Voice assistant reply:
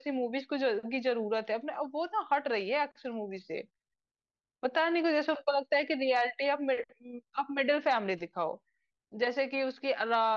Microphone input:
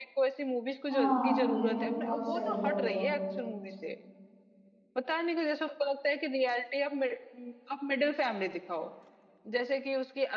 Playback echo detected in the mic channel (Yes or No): Yes